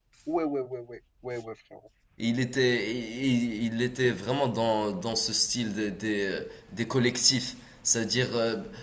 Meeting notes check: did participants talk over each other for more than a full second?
No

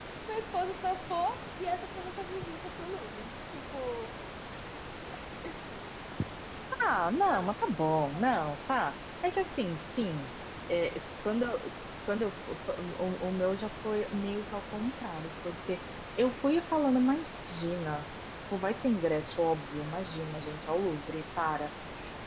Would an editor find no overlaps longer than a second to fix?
Yes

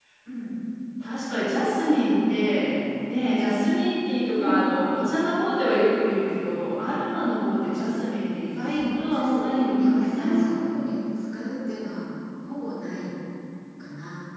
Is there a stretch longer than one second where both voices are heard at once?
Yes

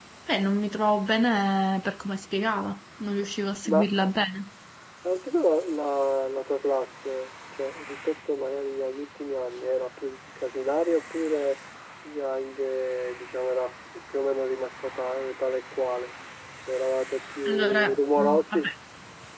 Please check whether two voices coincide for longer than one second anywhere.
Yes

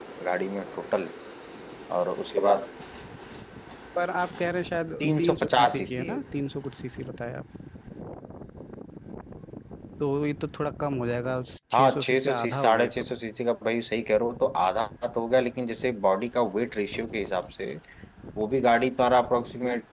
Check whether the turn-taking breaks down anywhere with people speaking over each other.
Yes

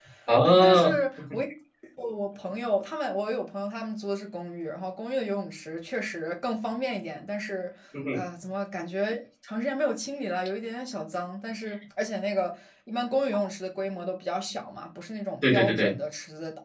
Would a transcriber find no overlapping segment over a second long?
Yes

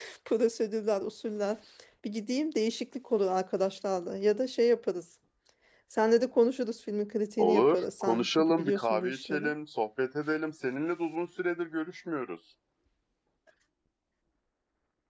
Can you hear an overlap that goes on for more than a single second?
Yes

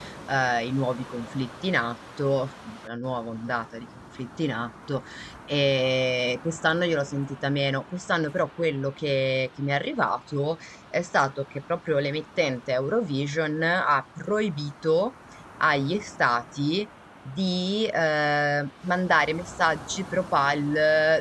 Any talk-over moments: No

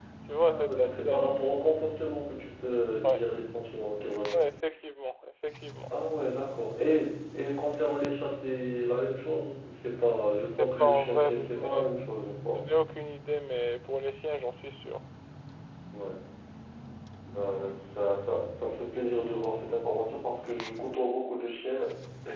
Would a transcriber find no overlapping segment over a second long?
No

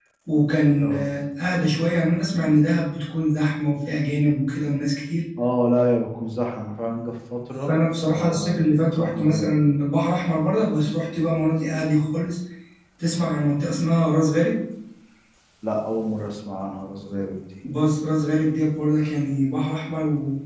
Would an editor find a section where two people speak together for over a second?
Yes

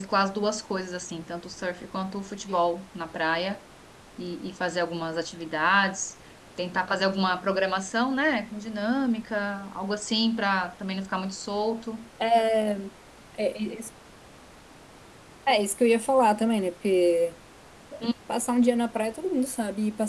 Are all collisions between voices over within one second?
Yes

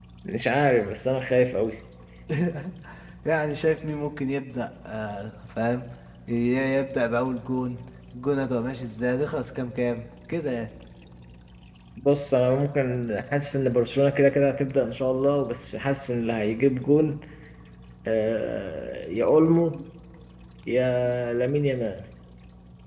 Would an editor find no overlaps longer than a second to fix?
Yes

